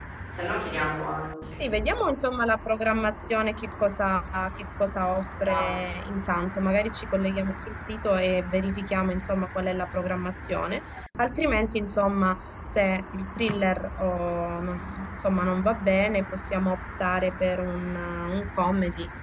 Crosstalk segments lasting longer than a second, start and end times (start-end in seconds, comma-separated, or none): none